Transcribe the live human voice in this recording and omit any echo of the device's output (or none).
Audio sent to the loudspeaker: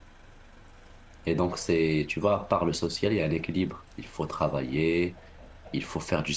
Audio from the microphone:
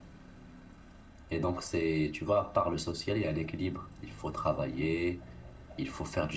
none